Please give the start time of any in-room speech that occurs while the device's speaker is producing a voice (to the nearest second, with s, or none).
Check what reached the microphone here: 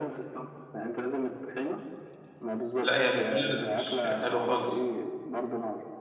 3 s